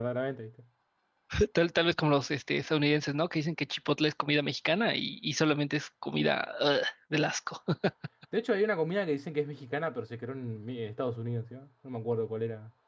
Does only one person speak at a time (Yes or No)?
Yes